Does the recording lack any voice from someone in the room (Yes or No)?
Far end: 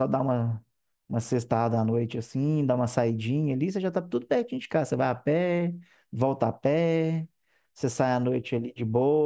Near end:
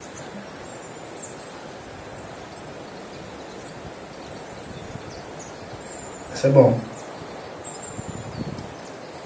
No